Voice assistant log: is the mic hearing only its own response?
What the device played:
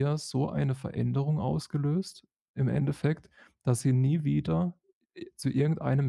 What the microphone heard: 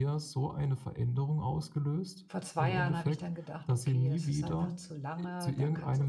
No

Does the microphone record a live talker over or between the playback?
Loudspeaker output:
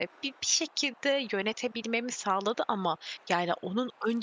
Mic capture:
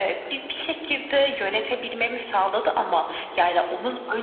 No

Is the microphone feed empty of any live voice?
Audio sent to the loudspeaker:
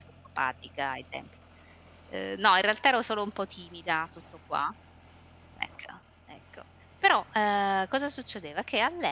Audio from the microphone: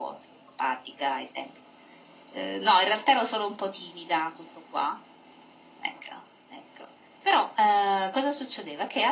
Yes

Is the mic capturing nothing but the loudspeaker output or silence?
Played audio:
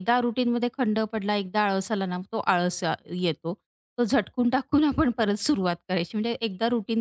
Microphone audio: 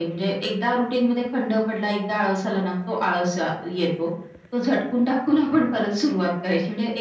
Yes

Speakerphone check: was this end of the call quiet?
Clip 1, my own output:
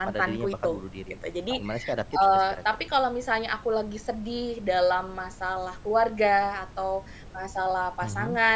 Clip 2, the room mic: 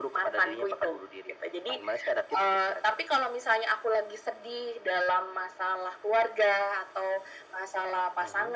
Yes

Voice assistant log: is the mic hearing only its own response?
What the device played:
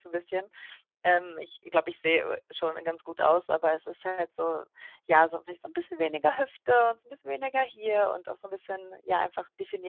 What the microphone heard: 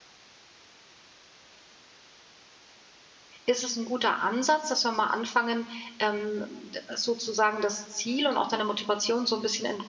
No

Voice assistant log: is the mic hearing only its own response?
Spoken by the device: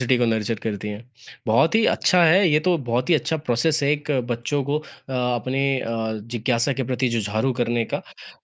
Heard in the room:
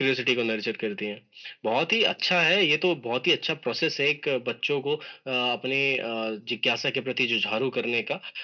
Yes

